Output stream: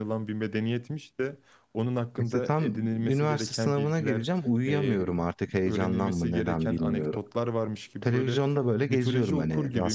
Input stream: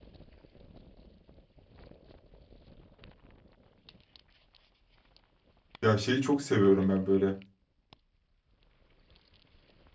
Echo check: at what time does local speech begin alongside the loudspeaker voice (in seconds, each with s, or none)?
5.8 s